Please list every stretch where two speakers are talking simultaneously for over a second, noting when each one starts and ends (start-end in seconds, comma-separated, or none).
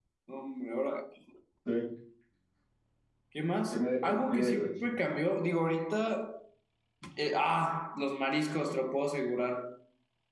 3.7-4.9